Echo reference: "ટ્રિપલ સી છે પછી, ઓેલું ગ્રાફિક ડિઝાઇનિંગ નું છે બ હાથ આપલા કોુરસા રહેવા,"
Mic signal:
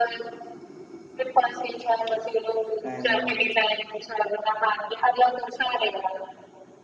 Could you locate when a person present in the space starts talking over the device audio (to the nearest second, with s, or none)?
3 s